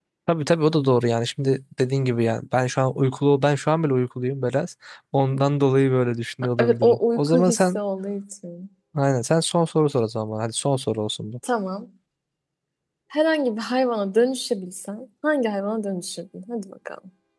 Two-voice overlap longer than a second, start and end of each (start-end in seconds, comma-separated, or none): 6.6-7.8